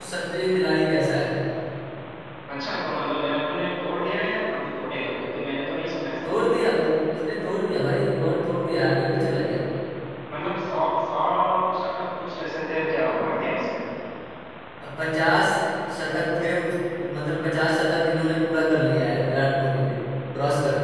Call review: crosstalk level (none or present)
none